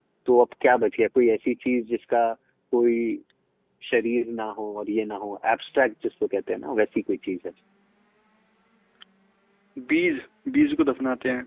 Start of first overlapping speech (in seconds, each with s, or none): none